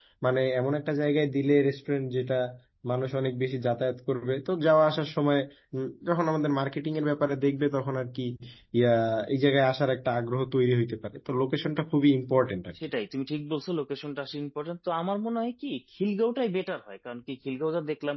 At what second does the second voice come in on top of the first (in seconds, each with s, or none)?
none